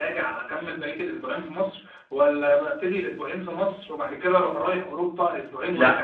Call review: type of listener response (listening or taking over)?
taking over